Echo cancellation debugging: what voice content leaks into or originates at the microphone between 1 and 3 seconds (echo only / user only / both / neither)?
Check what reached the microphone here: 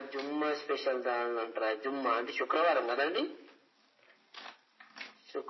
echo only